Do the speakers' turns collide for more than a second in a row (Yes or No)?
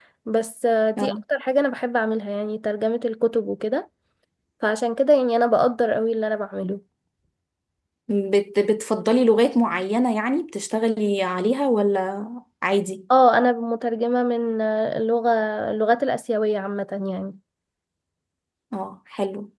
No